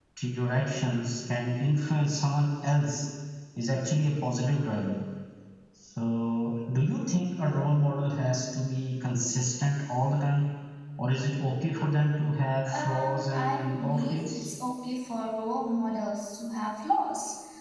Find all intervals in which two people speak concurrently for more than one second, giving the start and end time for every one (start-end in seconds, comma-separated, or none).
12.7-14.5